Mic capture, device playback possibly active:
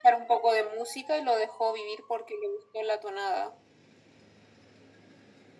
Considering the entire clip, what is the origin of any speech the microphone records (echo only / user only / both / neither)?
echo only